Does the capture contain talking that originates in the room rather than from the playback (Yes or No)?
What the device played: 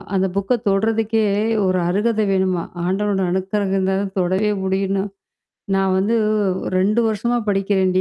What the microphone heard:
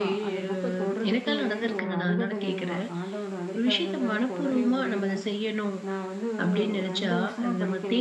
Yes